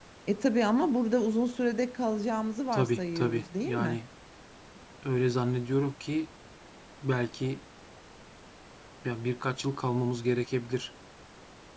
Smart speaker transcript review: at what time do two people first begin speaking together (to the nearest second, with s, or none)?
3 s